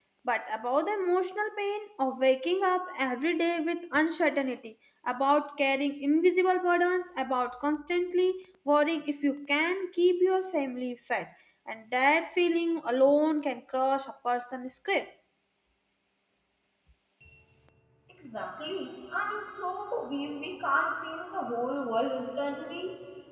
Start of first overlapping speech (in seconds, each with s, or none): none